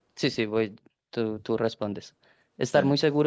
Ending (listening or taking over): listening